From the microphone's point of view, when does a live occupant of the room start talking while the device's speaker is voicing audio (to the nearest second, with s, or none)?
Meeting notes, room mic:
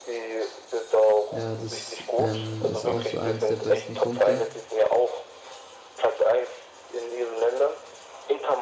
1 s